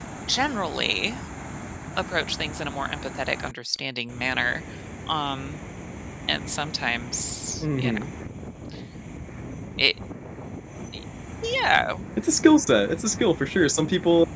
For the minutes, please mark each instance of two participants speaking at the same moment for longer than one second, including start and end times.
none

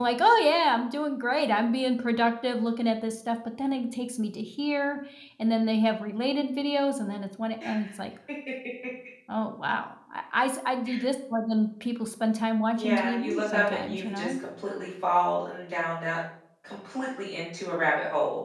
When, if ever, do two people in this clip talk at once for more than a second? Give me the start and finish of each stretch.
12.8-14.4

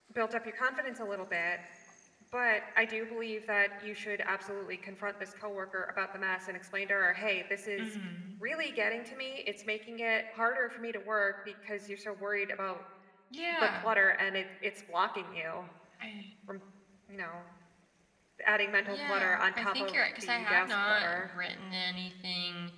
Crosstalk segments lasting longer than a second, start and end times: 18.9-21.3

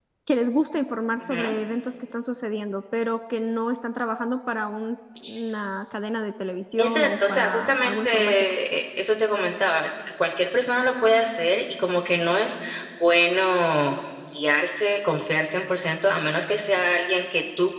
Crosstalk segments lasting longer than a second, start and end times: 6.8-8.5

